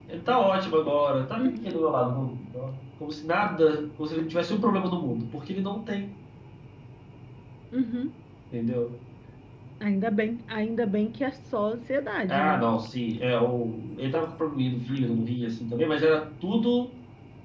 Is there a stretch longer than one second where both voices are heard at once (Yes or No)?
No